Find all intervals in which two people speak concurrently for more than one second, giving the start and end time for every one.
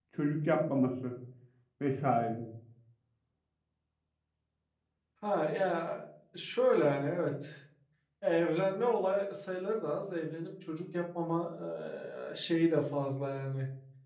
none

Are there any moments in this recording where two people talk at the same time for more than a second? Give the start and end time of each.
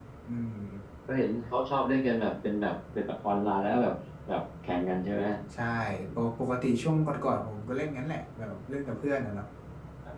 none

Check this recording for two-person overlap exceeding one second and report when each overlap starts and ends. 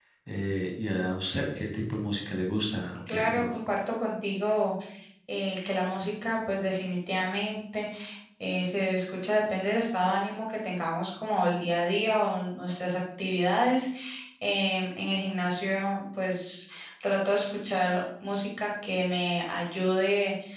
none

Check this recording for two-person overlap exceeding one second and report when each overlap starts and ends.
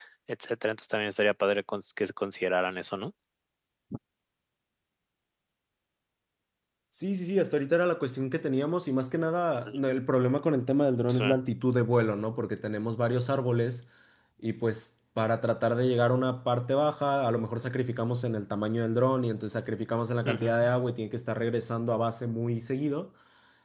none

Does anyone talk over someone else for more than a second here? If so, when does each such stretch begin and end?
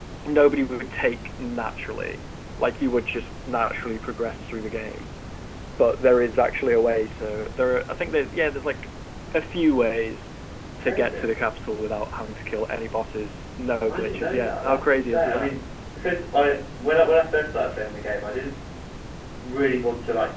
13.9-15.5

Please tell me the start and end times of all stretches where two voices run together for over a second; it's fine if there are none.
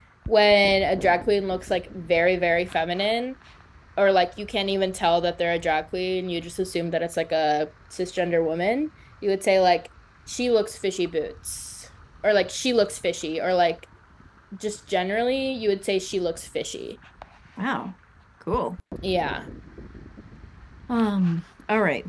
none

